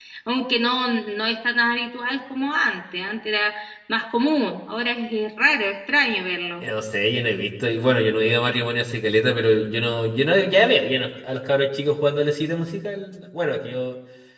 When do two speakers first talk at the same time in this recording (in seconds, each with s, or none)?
none